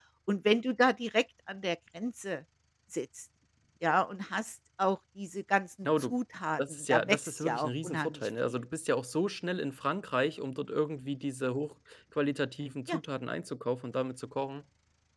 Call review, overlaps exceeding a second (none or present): present